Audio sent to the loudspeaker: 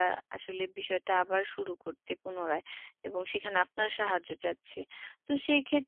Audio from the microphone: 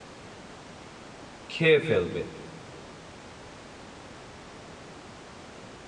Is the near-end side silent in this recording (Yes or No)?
No